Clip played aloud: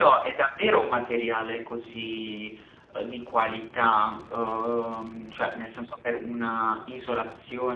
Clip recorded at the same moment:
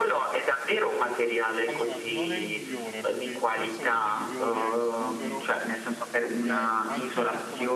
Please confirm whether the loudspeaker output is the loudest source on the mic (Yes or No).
Yes